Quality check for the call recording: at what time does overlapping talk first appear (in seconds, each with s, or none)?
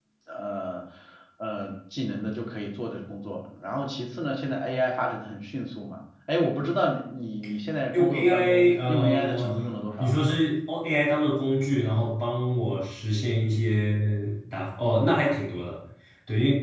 7.9 s